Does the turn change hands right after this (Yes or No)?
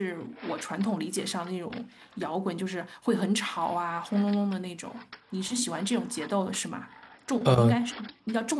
No